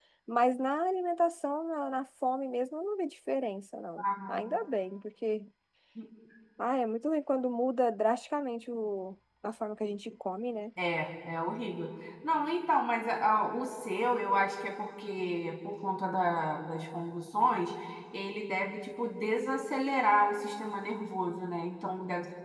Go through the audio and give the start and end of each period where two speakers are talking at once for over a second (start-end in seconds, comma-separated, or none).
none